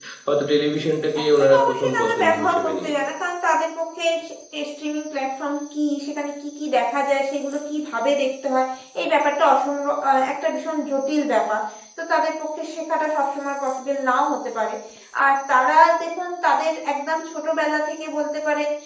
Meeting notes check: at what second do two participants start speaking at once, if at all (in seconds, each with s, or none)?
1.5 s